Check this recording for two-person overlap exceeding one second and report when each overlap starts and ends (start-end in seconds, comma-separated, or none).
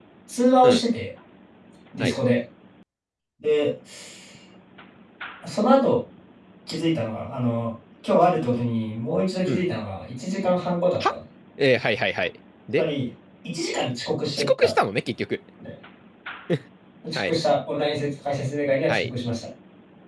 none